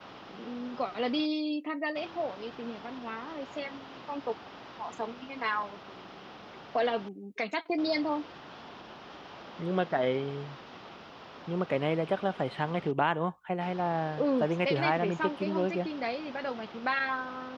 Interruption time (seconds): 14.2 s

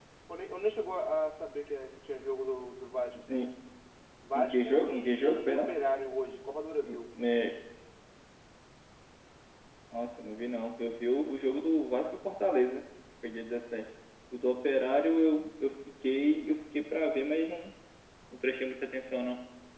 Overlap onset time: 4.3 s

